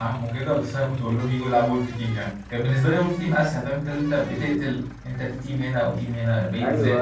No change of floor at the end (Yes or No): No